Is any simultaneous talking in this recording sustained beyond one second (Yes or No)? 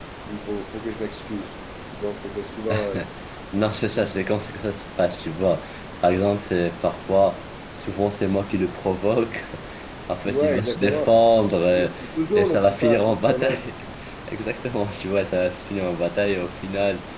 Yes